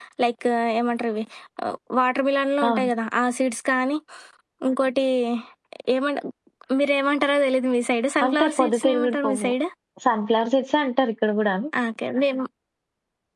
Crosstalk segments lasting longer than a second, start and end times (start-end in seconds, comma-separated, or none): 8.2-9.5